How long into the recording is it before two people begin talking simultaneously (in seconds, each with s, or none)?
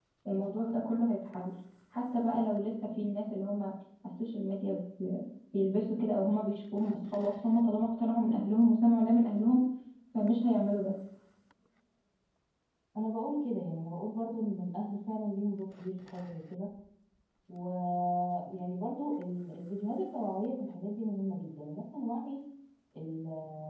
none